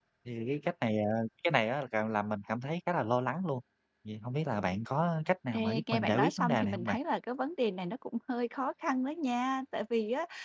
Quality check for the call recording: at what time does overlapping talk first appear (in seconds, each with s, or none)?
5.5 s